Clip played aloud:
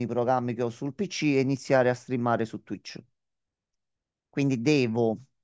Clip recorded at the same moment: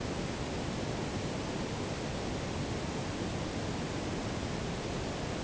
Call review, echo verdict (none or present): none